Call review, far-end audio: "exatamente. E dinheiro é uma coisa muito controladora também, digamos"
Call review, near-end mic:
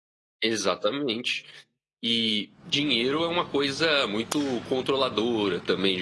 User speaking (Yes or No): No